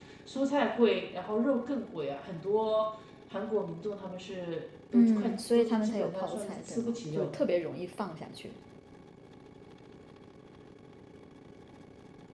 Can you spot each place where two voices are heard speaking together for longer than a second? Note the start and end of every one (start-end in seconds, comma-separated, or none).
4.9-7.4